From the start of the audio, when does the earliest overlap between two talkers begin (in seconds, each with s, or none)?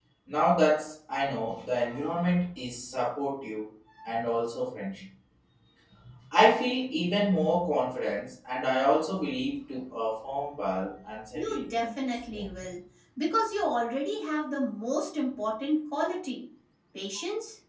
11.4 s